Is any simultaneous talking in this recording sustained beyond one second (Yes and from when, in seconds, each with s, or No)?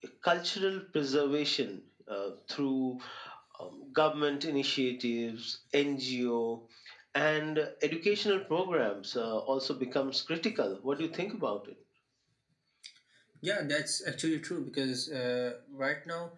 No